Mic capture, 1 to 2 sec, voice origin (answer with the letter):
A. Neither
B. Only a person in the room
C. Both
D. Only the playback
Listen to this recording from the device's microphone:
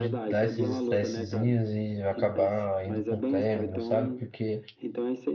C